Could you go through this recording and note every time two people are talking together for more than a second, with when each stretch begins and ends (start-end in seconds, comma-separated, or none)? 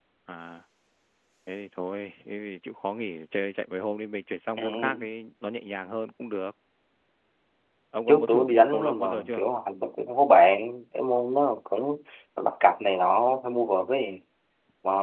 8.1-9.4